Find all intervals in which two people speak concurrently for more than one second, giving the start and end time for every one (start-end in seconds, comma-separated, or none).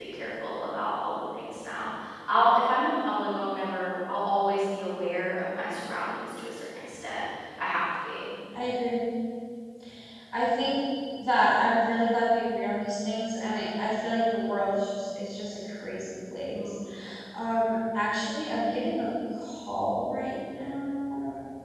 none